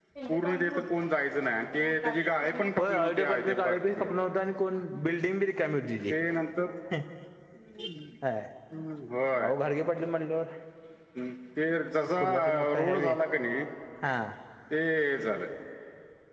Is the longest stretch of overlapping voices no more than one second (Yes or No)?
No